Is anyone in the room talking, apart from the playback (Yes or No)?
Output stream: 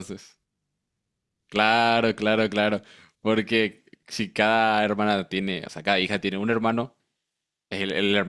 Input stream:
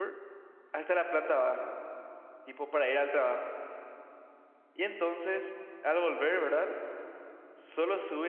Yes